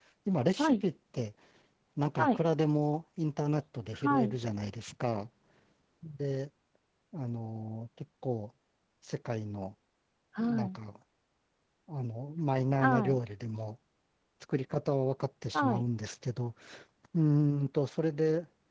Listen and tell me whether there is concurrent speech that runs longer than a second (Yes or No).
No